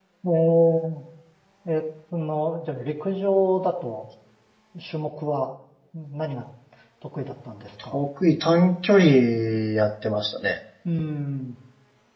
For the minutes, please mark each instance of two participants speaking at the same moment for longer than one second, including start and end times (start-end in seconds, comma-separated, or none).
none